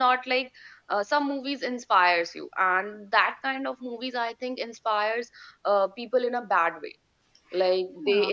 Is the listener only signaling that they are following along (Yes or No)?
Yes